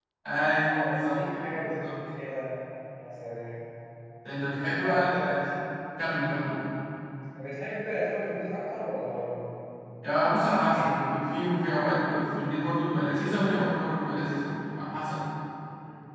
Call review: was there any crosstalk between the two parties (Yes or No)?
Yes